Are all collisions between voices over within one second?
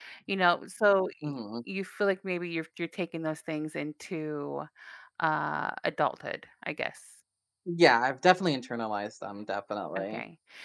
Yes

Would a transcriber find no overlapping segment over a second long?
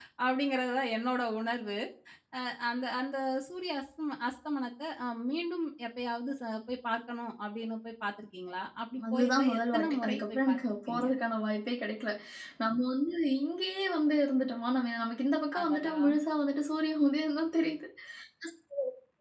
No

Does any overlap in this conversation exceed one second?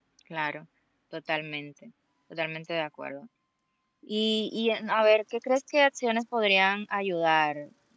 No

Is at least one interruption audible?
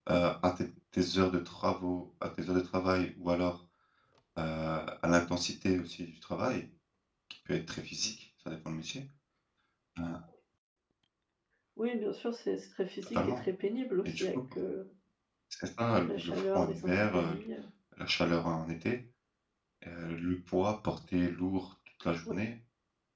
Yes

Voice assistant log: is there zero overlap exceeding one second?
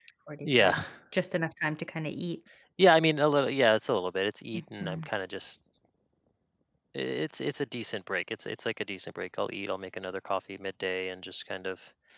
Yes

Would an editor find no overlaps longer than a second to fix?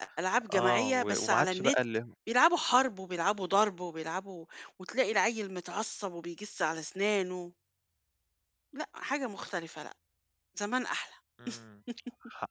No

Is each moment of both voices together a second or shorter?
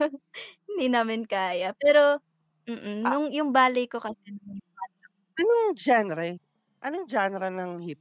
Yes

